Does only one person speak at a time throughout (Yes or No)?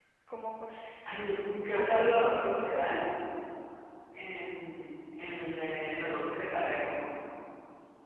No